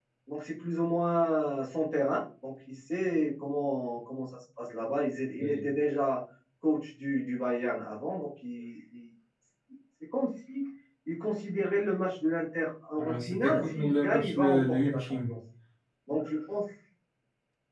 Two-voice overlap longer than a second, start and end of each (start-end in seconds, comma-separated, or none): 13.0-15.3